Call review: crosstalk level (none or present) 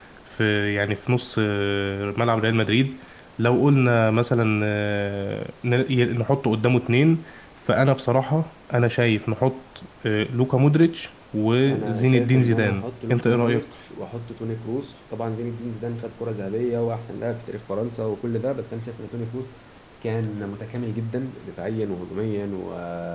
present